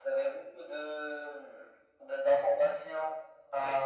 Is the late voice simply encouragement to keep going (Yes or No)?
Yes